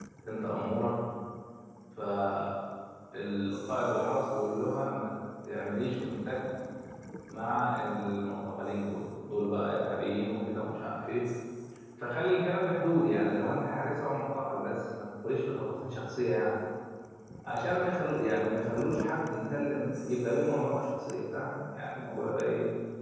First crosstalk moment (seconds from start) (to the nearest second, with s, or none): none